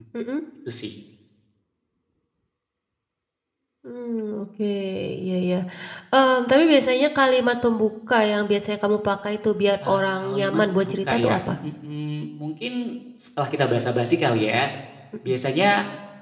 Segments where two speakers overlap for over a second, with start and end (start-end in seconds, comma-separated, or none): 9.9-11.6